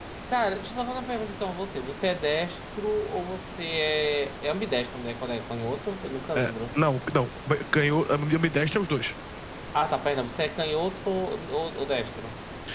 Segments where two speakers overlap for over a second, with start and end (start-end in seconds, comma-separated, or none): none